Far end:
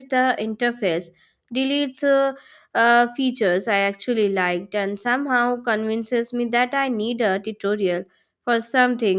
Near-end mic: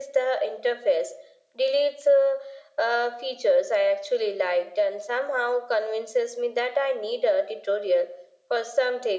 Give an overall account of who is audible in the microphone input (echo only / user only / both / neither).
echo only